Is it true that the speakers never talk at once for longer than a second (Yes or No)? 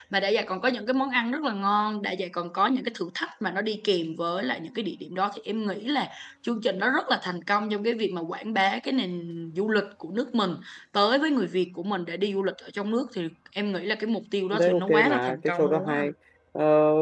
No